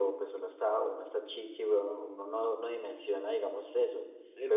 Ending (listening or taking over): listening